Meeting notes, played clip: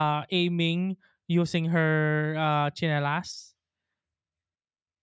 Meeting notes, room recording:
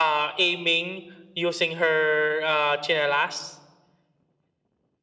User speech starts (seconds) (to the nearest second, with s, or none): none